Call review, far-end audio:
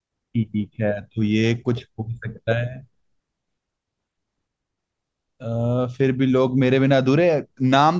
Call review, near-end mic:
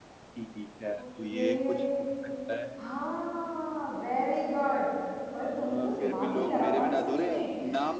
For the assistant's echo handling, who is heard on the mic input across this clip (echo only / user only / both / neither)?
both